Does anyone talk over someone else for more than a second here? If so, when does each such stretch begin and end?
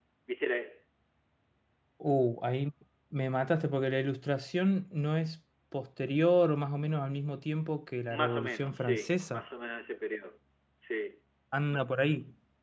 8.1-9.4

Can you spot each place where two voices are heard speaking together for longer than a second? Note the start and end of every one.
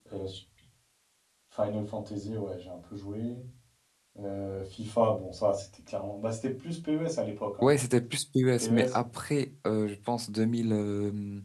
none

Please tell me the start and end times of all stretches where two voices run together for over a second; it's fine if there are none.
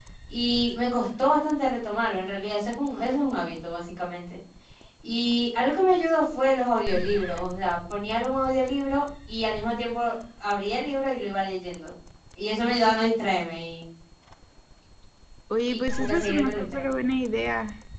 15.7-16.9

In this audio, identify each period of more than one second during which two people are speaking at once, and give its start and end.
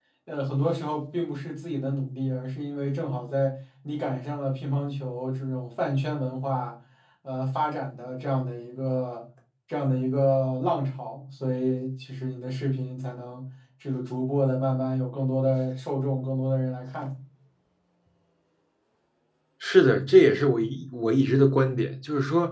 none

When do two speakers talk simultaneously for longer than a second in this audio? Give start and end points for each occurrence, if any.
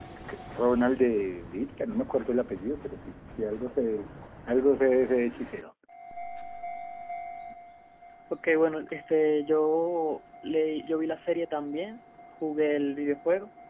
none

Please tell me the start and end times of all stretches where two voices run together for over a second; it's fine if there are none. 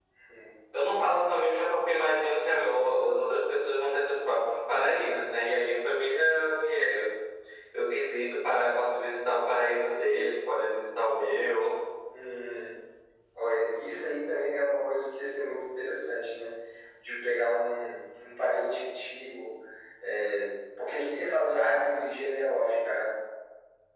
none

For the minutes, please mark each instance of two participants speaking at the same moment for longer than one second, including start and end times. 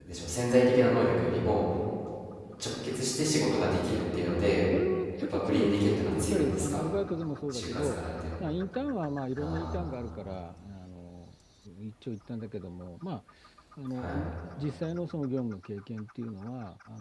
5.2-6.8

